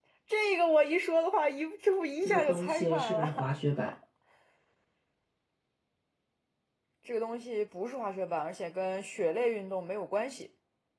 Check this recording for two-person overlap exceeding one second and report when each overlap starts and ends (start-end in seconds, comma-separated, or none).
2.2-3.5